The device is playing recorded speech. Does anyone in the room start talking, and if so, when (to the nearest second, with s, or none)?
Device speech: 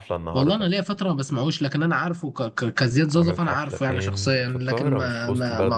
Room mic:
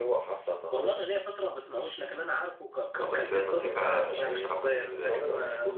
3 s